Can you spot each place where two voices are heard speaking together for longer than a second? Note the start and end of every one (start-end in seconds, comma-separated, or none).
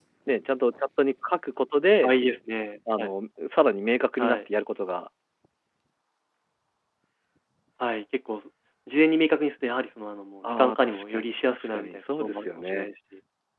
10.4-12.9